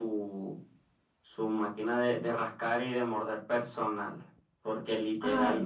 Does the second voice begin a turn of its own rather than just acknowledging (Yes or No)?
No